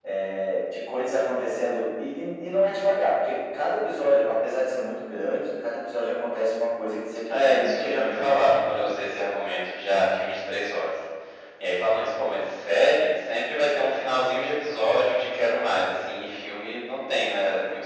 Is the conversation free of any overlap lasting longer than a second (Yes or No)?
No